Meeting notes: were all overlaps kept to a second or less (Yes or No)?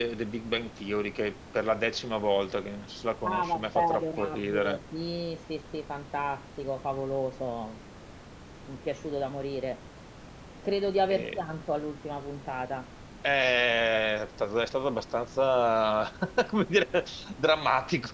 No